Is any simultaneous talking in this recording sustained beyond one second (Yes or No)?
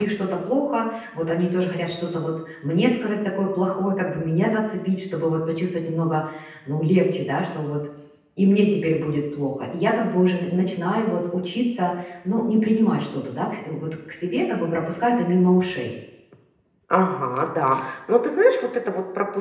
No